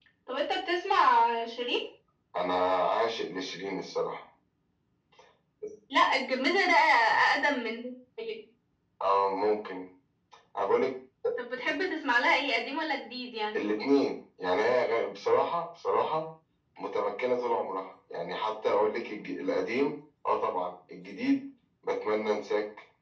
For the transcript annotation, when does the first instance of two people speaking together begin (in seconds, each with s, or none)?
none